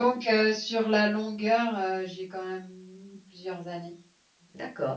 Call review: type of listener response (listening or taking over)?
taking over